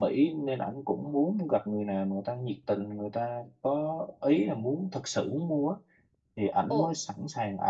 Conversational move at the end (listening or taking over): listening